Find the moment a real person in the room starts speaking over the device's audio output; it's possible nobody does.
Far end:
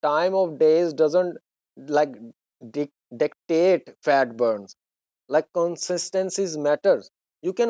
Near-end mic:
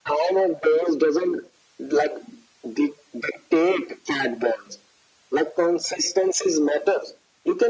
none

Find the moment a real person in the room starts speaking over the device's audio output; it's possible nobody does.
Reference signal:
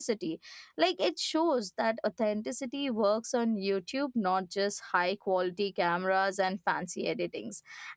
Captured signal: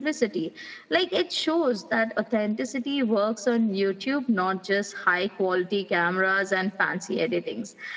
none

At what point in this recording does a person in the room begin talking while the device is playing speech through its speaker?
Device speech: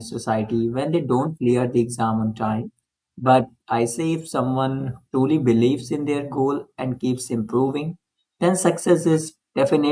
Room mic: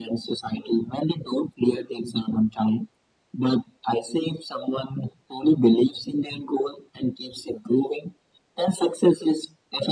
none

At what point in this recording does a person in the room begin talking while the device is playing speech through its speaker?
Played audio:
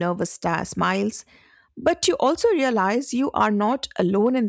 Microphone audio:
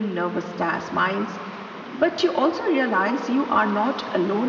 none

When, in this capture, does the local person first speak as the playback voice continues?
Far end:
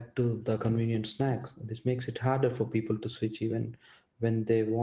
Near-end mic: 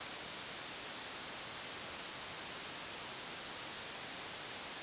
none

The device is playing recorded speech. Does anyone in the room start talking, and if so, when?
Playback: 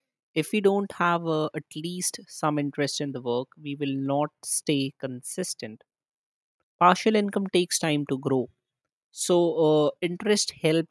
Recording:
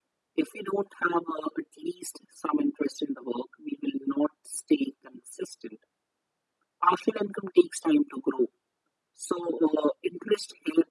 none

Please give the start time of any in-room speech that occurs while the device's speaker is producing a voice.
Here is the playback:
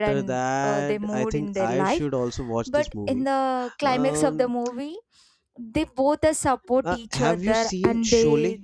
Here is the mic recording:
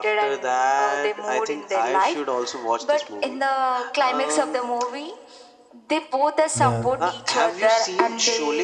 6.5 s

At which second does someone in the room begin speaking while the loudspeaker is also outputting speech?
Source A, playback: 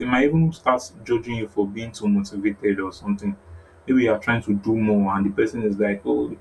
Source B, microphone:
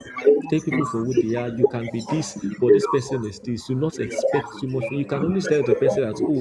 0.5 s

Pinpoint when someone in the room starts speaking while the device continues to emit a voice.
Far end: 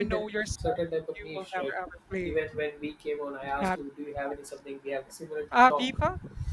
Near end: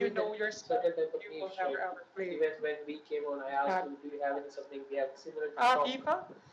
none

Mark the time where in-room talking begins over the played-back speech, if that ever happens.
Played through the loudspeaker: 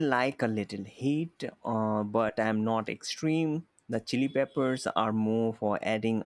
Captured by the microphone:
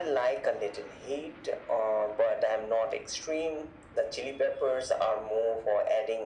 none

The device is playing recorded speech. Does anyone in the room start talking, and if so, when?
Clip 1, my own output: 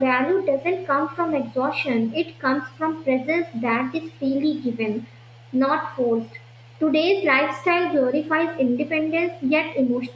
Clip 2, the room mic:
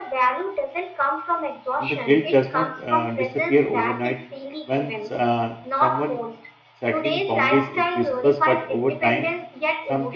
1.8 s

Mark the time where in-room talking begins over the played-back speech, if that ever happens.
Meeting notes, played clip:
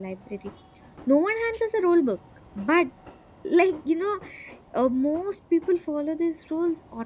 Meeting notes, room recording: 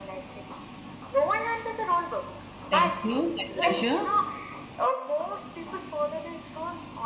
2.7 s

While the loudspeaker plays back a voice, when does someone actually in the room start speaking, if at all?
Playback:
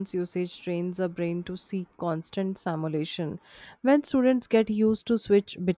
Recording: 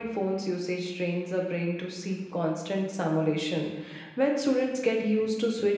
none

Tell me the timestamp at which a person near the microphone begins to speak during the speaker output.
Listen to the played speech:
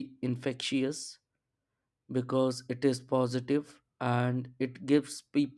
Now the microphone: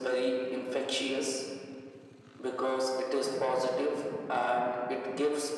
none

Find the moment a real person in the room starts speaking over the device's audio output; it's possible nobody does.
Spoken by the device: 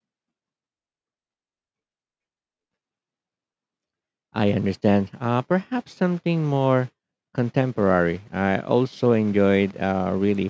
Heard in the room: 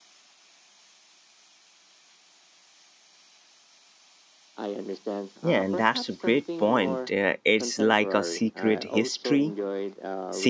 5.4 s

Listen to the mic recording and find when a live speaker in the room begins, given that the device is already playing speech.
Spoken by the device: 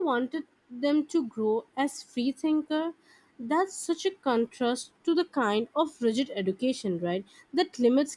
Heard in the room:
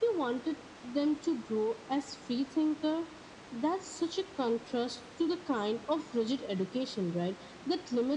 none

